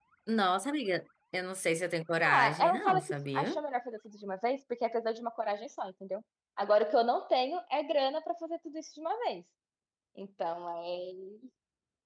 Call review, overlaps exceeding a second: present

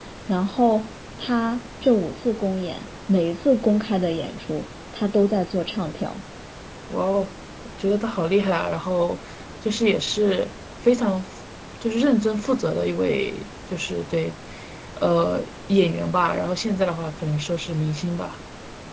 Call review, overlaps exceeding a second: none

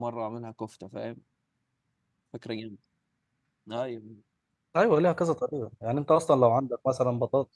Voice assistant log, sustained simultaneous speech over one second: none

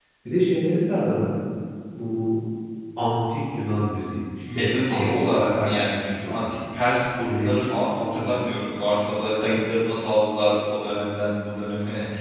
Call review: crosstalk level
present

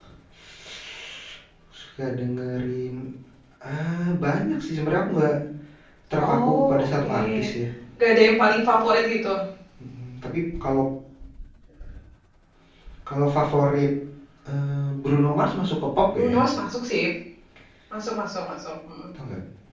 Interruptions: present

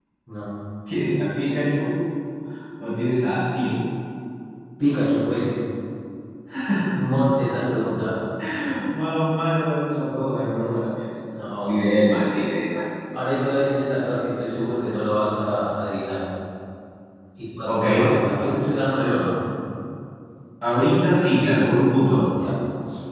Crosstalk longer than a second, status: none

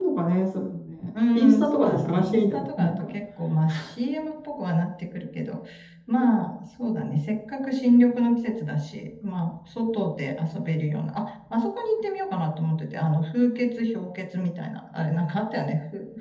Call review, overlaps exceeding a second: present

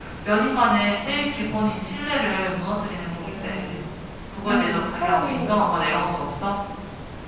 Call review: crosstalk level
present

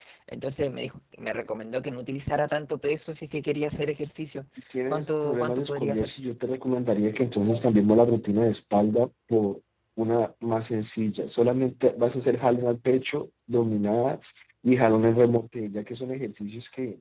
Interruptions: present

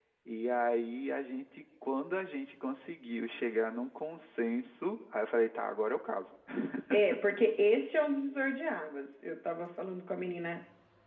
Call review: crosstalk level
none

